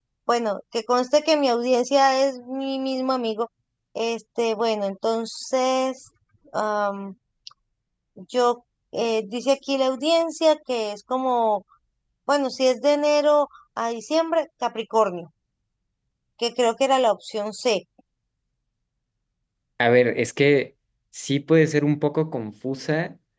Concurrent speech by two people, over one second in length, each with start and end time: none

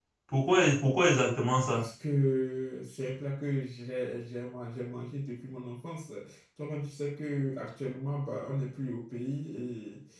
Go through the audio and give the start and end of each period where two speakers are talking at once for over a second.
none

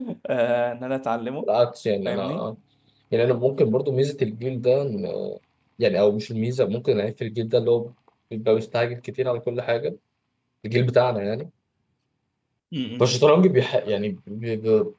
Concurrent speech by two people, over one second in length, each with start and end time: none

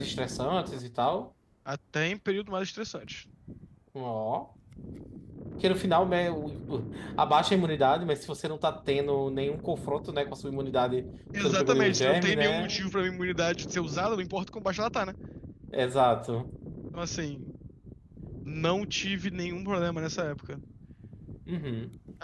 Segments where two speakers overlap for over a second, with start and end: 11.4-12.8

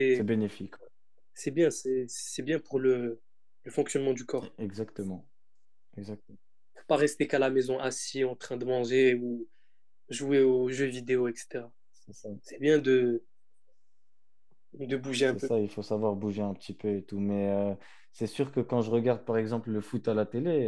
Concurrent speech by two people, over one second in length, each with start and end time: none

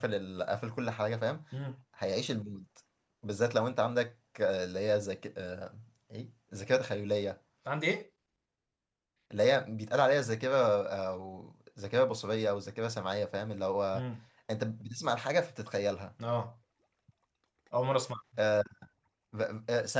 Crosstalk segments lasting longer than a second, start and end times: none

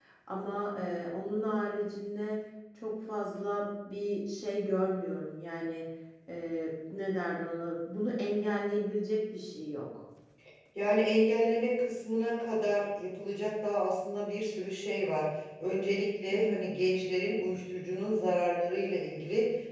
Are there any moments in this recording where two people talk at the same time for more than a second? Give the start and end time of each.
none

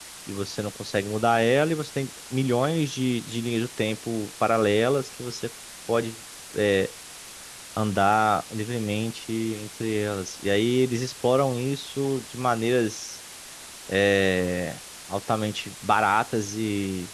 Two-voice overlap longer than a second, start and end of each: none

